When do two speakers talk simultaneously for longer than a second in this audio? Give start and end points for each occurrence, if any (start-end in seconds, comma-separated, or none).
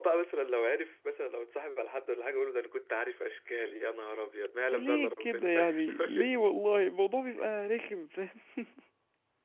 4.7-6.3